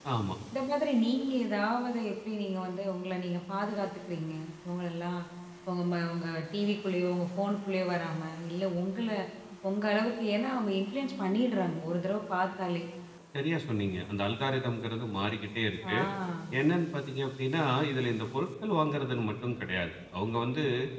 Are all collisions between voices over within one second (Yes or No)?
Yes